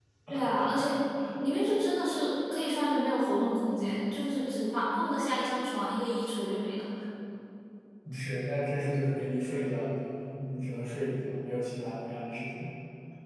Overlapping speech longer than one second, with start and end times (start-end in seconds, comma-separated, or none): none